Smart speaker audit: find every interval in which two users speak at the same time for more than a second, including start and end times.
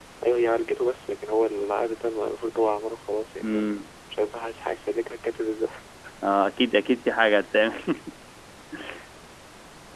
none

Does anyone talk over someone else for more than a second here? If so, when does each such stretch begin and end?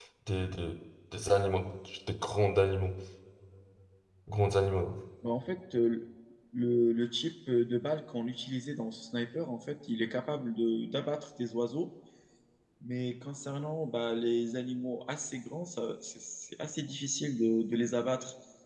none

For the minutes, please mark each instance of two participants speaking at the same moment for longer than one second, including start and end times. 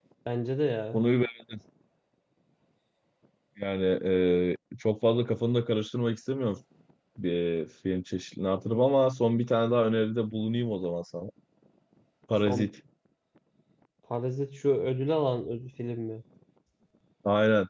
none

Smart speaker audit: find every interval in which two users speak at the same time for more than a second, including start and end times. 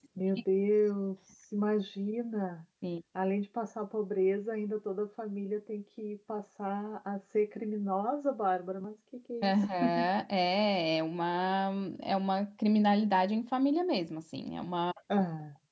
none

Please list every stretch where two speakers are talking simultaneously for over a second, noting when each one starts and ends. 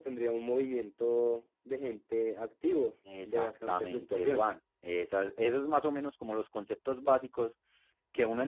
3.2-4.4

